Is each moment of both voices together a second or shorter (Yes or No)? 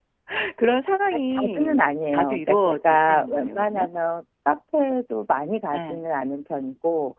No